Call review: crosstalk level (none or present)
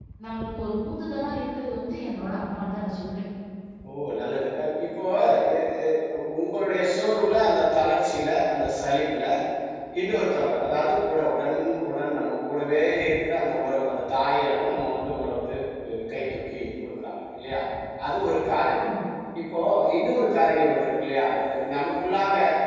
none